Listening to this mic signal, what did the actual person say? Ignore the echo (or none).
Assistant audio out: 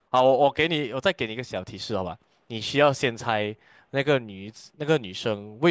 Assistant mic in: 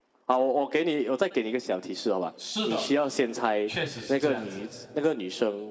是的，确实是这样子。